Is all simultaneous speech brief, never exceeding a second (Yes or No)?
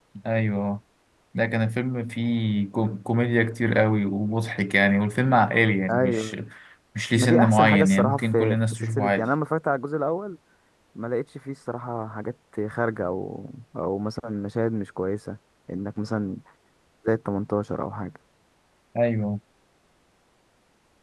No